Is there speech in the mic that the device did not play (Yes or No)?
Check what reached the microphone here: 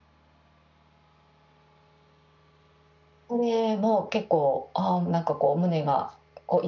Yes